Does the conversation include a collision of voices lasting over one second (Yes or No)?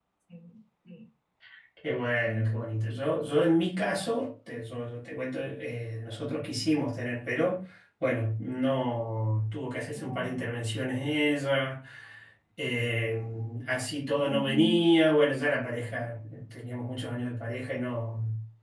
No